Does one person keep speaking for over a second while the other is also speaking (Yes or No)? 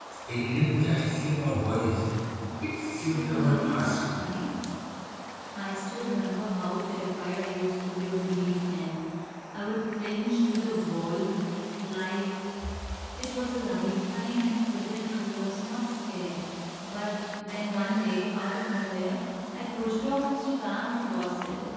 Yes